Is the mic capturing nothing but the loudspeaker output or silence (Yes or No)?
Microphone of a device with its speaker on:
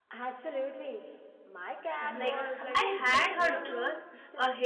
No